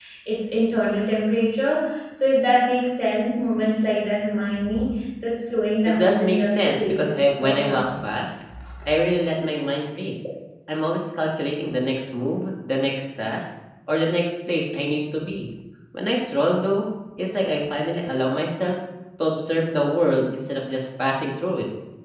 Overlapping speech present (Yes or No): Yes